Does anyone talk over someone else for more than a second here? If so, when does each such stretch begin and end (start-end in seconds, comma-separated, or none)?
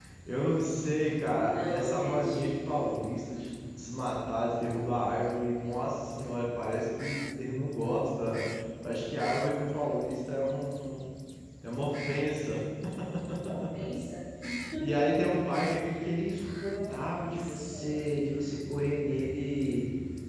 1.5-2.8, 16.7-18.0